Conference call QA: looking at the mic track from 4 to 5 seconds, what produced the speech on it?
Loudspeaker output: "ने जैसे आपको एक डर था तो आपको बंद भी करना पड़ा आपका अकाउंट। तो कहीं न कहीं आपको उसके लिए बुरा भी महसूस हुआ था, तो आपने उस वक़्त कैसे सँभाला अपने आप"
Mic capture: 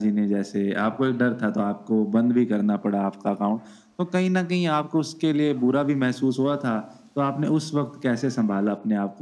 echo only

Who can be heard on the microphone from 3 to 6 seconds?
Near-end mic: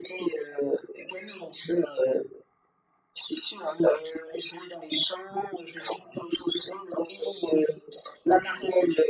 echo only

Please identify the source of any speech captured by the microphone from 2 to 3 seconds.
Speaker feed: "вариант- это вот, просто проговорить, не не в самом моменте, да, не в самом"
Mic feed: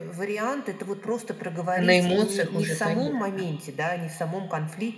both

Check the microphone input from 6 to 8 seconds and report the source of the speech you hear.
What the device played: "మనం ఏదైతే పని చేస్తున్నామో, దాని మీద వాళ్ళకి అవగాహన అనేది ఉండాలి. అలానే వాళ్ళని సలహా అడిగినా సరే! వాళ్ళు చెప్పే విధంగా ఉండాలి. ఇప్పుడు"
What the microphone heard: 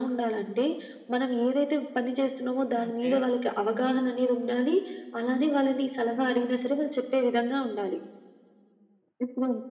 echo only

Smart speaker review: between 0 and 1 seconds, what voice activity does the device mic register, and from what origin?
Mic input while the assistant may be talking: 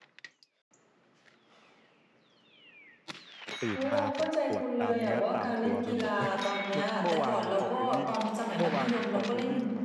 neither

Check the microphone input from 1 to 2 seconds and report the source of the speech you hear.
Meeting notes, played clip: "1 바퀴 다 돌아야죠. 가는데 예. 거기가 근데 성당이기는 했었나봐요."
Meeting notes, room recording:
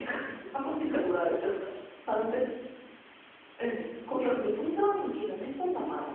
echo only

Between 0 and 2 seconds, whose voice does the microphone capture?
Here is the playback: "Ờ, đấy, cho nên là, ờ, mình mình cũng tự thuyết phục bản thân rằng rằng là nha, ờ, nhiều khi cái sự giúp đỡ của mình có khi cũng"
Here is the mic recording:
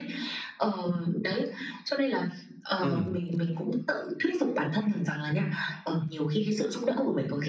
echo only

